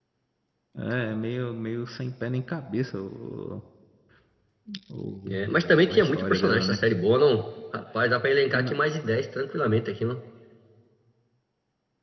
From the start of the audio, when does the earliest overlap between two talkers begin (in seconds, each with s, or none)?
5.2 s